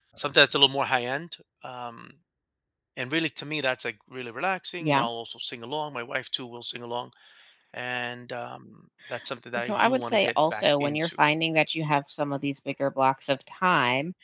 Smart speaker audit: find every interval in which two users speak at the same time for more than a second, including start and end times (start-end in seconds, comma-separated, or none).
9.6-11.1